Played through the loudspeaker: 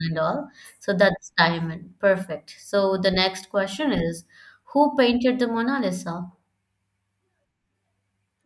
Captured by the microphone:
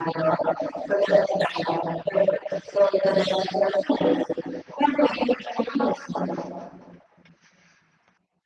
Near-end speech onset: none

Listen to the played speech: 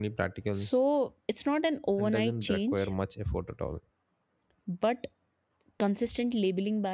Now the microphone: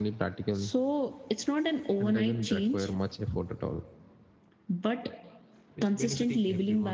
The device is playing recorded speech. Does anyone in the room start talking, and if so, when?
5.8 s

